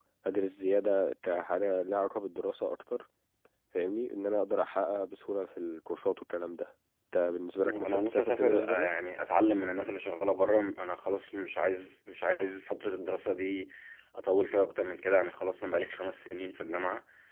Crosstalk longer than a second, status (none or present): present